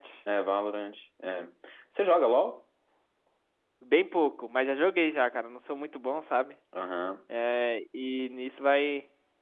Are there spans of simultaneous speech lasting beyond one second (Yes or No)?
No